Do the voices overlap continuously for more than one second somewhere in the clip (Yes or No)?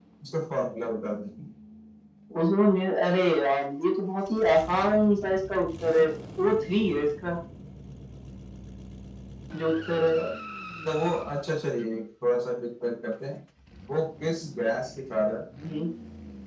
No